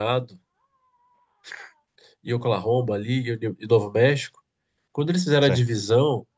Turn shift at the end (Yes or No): No